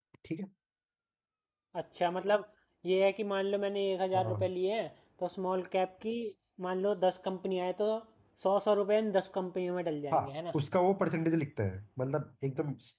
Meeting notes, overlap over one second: none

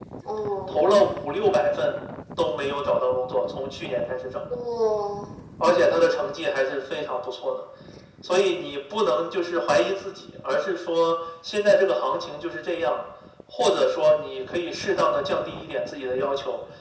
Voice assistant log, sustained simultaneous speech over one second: none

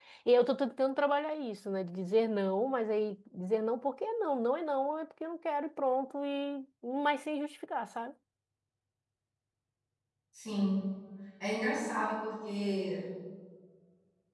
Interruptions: none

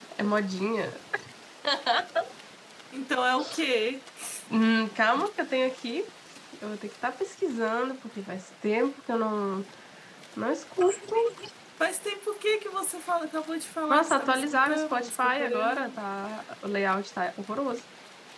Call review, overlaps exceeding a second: present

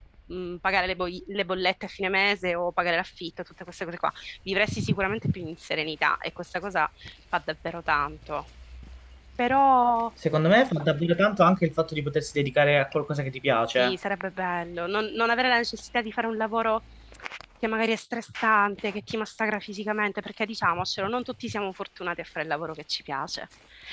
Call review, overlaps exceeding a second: none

